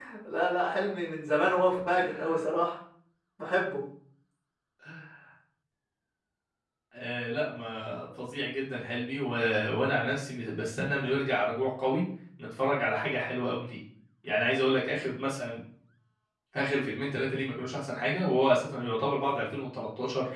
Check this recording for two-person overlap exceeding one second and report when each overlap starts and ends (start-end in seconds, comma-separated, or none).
none